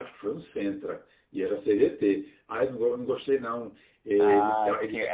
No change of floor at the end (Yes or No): No